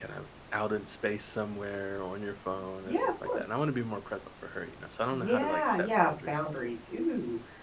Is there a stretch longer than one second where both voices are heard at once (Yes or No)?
Yes